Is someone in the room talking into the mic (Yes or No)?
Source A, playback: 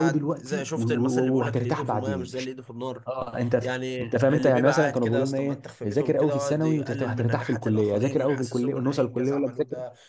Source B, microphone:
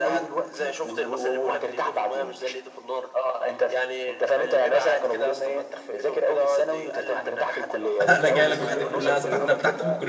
Yes